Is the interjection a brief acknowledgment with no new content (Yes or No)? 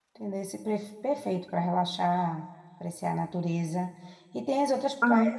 Yes